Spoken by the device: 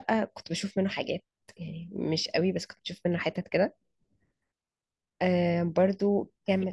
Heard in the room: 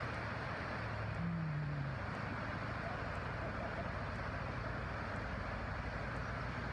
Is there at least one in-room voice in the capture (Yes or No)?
No